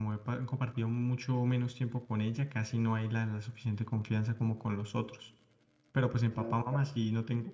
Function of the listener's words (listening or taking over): listening